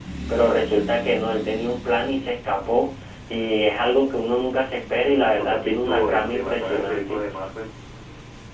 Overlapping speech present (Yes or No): Yes